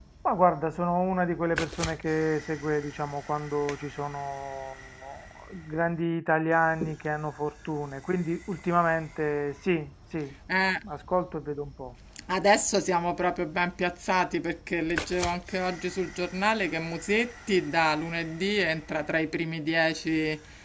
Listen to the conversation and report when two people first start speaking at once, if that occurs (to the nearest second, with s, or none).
none